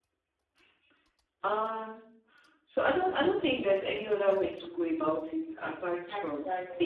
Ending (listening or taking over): listening